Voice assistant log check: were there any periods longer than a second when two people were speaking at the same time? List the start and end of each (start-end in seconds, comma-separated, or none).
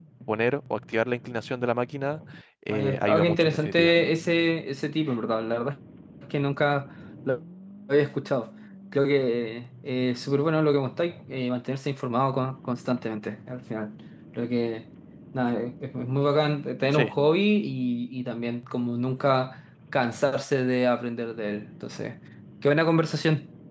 2.7-3.9